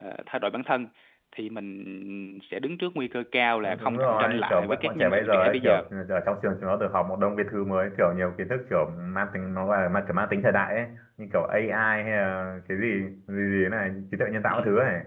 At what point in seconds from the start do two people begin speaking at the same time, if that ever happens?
3.6 s

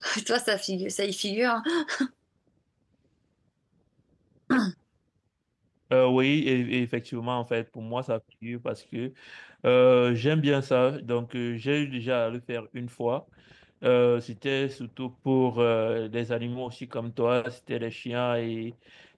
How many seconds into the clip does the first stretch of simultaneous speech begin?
none

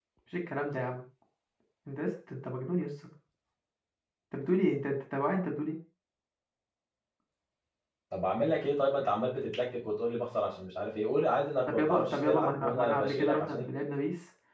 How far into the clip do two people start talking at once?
11.7 s

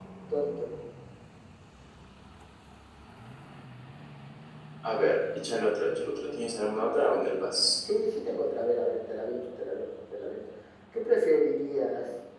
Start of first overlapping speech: 5.8 s

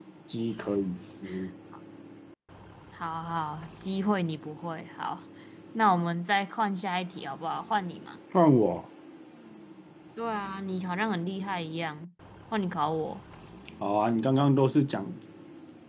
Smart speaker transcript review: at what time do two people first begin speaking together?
none

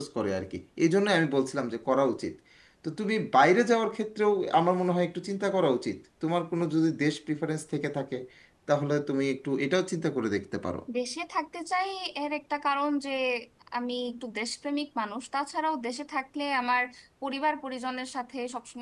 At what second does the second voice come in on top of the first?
none

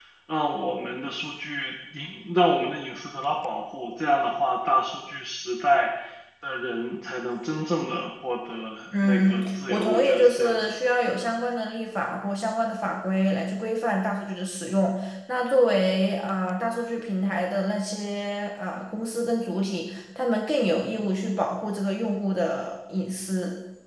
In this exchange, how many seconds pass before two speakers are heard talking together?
8.9 s

